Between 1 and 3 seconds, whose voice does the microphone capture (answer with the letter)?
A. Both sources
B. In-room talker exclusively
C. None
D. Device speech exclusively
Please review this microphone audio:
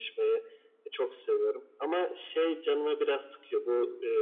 D